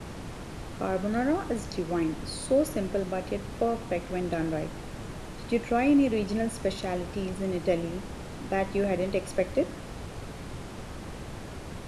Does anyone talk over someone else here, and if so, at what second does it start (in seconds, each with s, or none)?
none